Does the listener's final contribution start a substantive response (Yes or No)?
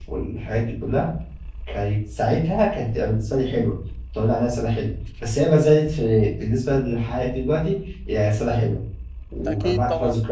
No